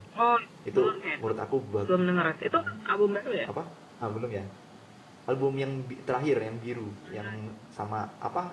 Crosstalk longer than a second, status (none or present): none